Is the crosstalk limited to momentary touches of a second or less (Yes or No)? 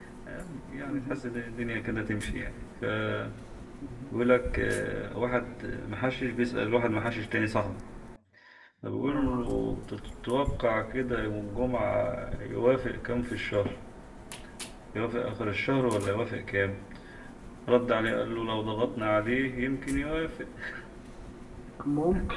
Yes